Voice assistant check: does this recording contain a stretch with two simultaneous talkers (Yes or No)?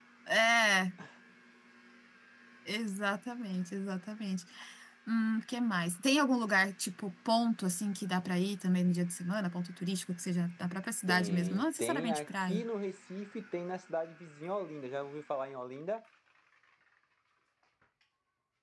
Yes